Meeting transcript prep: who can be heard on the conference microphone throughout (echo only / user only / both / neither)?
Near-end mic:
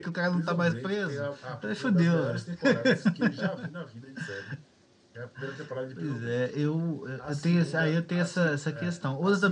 echo only